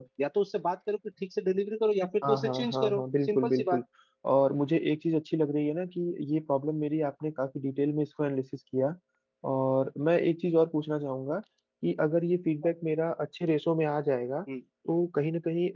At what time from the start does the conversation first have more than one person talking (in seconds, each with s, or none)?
2.2 s